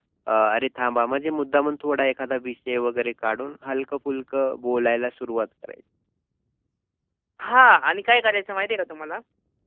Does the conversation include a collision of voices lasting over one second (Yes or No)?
No